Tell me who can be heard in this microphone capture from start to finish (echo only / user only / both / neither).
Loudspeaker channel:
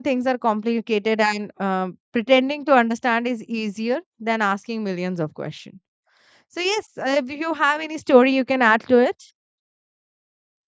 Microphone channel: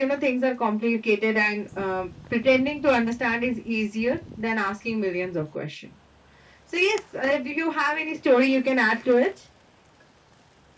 echo only